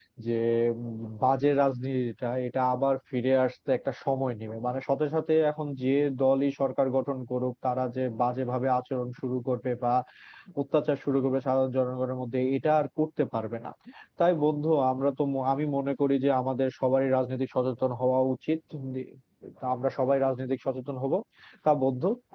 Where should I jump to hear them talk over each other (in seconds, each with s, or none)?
none